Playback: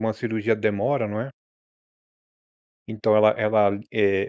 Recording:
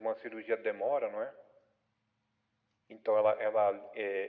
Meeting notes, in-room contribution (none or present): none